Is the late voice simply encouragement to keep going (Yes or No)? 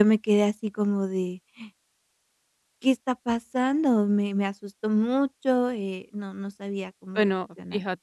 No